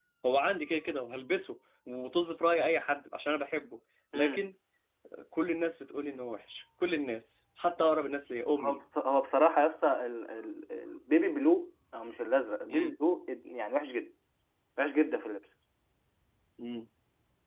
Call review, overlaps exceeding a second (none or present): none